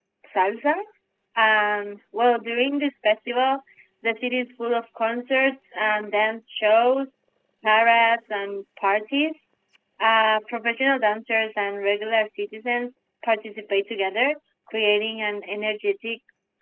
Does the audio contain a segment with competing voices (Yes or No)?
No